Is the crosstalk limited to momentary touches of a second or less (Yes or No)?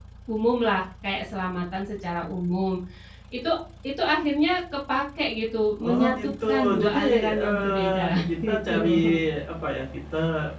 No